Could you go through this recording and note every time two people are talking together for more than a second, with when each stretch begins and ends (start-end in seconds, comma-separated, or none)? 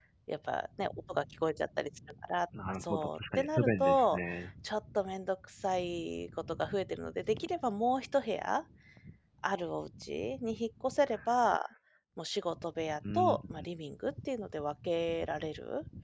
2.8-4.2